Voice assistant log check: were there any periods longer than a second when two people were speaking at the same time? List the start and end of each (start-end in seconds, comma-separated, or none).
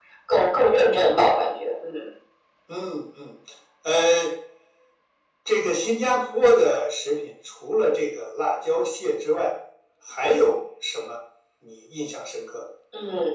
none